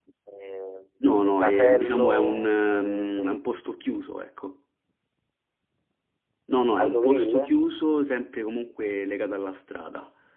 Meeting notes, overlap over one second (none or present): present